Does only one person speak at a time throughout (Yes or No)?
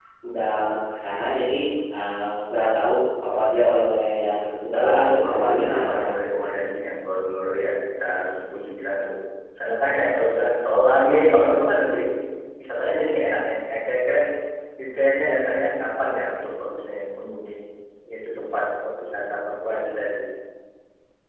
No